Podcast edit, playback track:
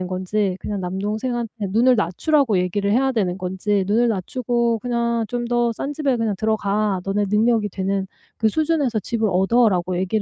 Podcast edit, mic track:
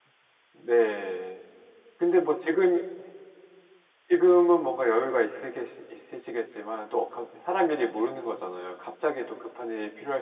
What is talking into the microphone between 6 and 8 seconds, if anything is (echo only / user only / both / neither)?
user only